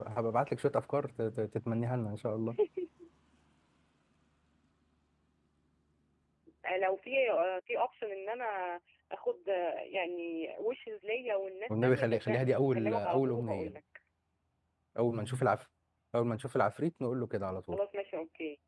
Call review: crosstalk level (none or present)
present